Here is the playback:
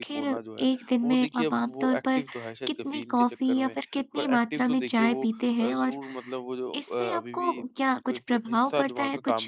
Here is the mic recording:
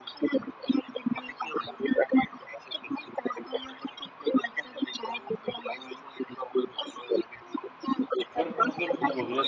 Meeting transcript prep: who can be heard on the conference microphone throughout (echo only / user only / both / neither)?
both